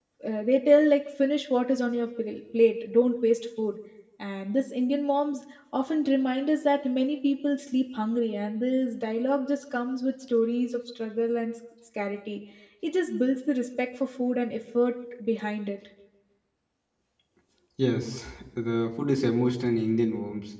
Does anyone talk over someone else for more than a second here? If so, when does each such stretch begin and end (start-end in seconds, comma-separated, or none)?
none